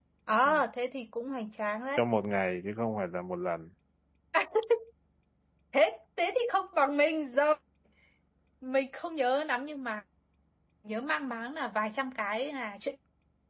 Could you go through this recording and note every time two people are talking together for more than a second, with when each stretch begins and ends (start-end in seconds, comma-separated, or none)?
none